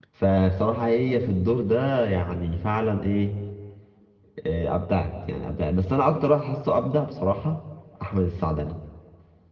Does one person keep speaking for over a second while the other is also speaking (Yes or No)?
No